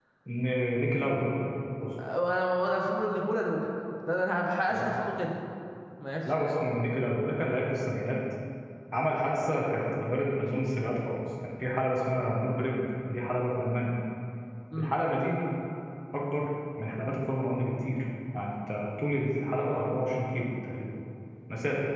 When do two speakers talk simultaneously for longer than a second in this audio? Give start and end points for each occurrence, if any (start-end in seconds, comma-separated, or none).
none